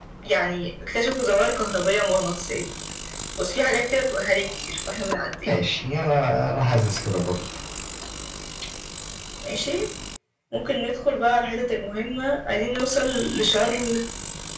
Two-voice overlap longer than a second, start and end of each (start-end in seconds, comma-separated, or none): none